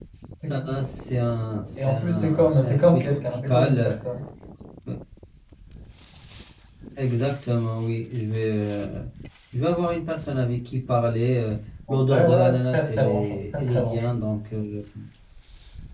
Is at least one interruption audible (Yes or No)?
Yes